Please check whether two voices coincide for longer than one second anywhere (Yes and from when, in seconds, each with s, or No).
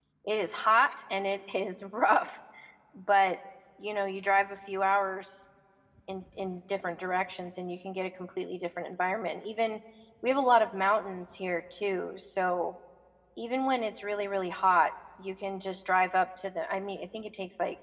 No